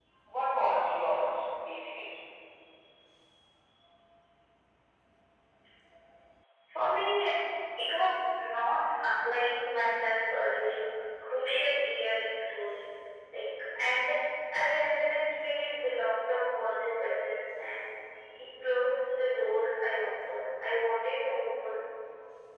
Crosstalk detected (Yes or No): No